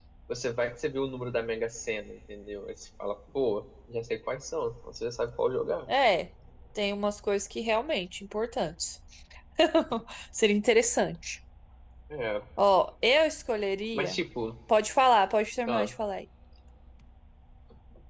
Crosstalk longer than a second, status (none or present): none